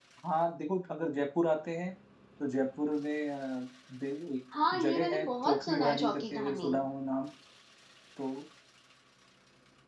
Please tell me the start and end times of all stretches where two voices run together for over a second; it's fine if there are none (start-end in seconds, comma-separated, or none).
4.8-6.7